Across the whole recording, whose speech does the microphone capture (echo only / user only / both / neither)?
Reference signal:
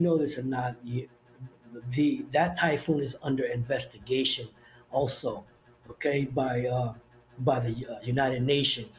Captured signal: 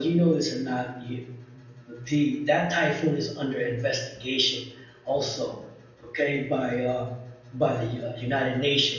echo only